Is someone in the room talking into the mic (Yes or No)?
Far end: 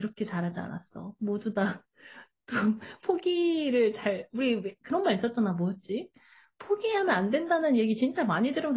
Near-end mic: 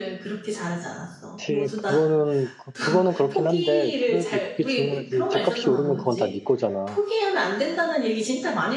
Yes